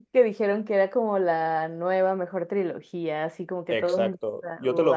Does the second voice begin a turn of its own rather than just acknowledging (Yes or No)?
Yes